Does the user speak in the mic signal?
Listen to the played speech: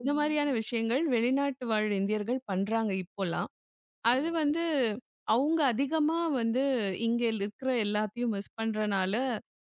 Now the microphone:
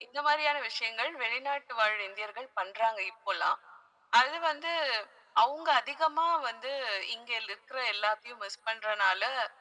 No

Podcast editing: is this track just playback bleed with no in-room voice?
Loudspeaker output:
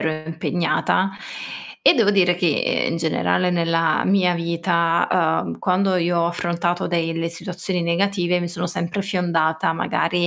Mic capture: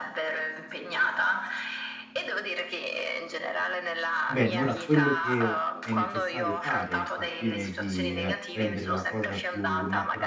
No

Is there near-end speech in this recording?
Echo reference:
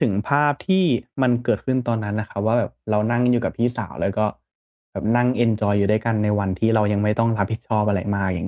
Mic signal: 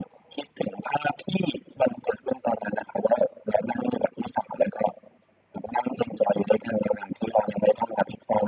No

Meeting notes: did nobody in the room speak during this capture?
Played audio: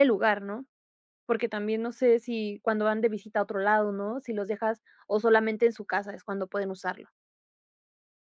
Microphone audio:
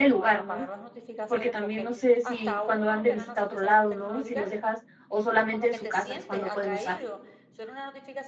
No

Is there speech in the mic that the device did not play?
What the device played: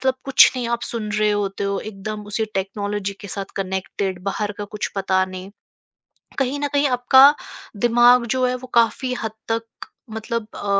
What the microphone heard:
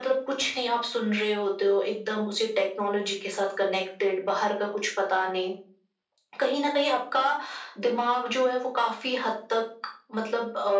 No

